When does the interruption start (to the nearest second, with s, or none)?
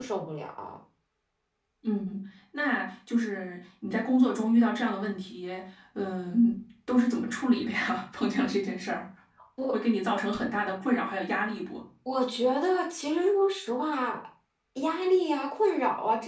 none